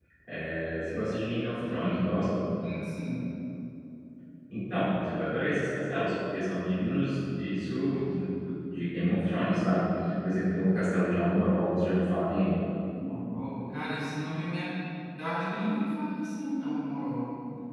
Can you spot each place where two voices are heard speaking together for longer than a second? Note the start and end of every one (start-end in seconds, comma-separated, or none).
none